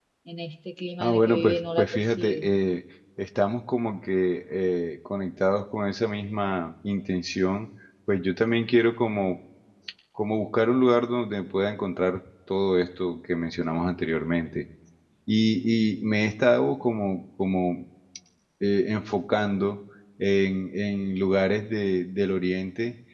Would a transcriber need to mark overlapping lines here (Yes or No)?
Yes